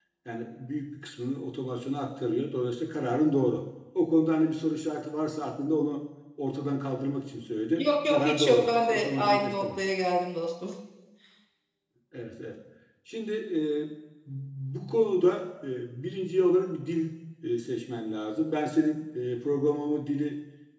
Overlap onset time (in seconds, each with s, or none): 7.8 s